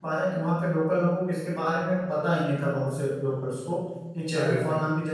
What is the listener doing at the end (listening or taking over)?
listening